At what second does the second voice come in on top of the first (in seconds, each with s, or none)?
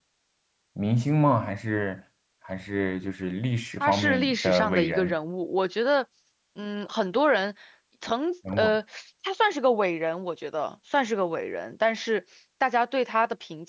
3.8 s